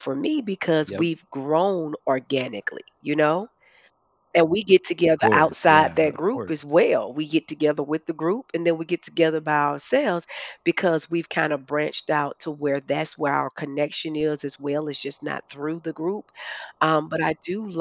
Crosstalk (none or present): present